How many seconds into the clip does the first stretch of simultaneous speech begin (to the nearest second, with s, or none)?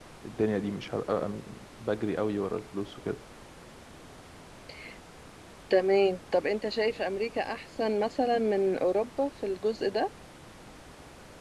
none